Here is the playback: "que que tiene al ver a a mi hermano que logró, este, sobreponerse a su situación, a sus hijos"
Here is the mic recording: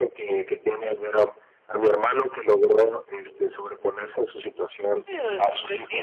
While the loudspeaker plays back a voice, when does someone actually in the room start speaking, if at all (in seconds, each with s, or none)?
5.1 s